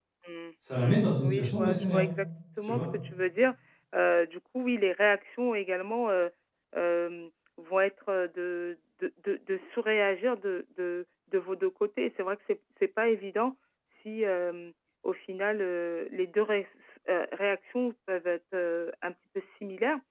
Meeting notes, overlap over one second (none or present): present